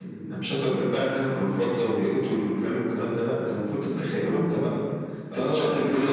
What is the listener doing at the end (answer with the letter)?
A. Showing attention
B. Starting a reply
B